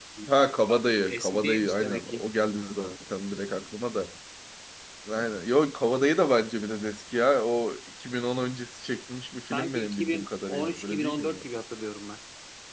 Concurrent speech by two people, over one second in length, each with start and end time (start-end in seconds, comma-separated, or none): 0.7-2.2, 9.4-11.4